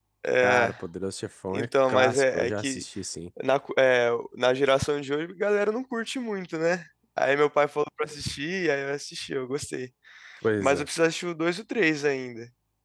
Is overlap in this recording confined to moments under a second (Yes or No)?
No